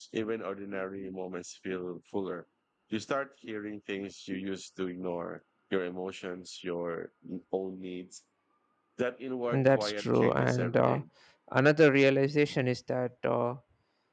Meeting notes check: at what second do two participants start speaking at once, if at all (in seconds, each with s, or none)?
9.5 s